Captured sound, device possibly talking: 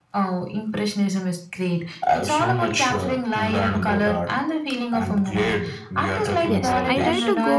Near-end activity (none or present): present